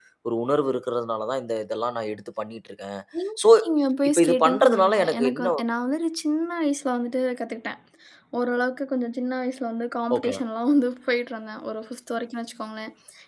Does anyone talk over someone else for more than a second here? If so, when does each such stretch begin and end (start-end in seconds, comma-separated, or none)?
4.1-5.5